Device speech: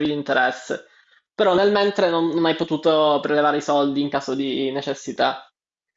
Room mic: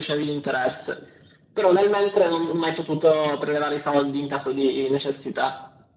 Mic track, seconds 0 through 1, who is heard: echo only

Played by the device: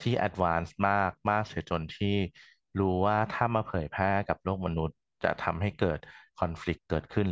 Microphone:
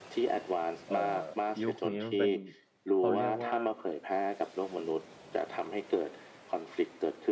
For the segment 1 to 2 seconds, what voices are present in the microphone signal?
both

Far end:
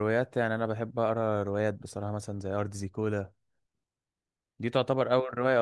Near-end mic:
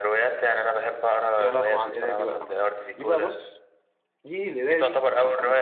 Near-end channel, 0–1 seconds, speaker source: echo only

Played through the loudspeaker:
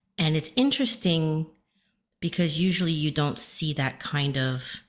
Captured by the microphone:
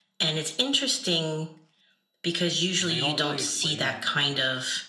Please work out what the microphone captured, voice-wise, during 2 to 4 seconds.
both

